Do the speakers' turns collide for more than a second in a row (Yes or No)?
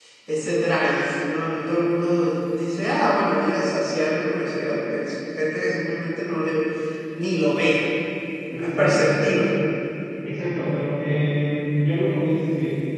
No